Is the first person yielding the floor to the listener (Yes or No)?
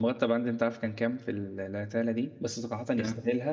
No